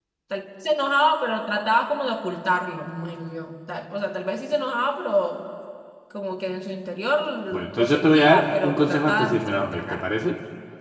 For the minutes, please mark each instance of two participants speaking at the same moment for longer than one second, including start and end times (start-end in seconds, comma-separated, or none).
7.5-10.1